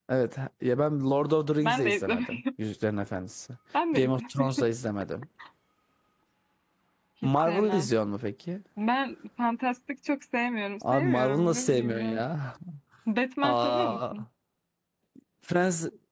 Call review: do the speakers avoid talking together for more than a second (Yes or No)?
No